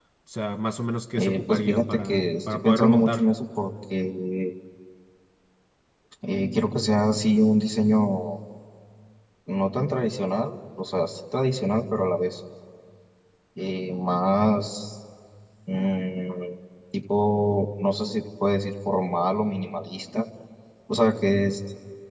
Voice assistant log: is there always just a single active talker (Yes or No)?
No